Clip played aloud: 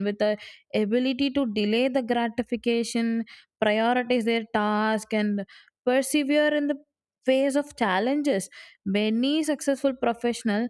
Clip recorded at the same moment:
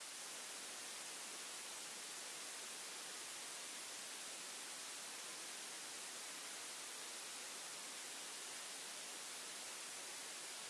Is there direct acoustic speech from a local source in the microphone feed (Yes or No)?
No